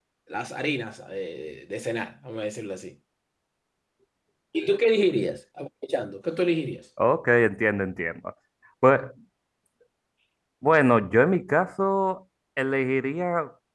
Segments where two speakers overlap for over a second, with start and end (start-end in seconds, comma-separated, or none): none